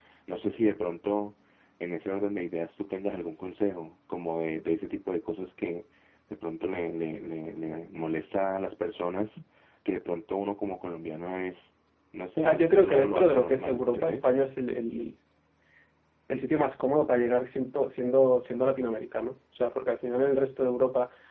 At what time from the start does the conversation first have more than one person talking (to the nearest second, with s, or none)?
12 s